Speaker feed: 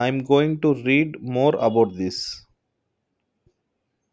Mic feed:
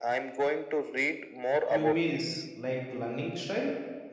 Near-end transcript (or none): You mean like learning style?